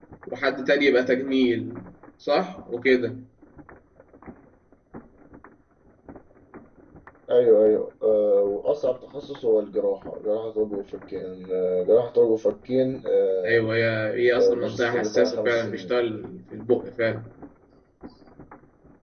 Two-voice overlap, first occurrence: 14.4 s

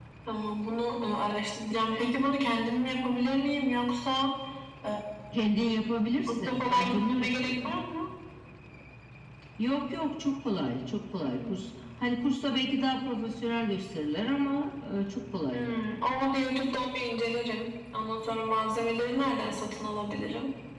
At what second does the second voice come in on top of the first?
6.3 s

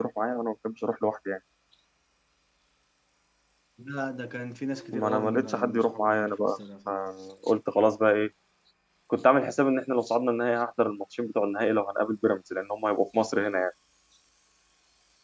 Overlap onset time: 4.9 s

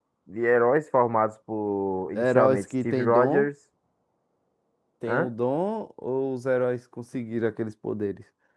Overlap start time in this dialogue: 2.1 s

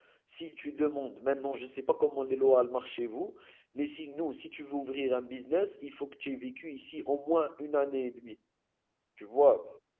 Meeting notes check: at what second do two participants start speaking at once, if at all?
none

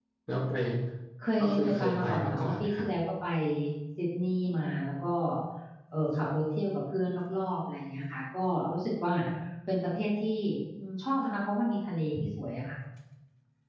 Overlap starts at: 1.4 s

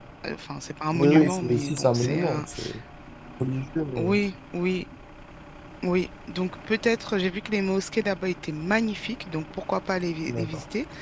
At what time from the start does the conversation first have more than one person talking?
0.9 s

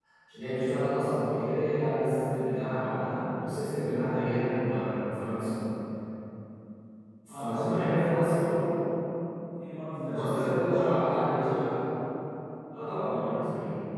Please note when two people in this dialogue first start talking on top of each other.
7.3 s

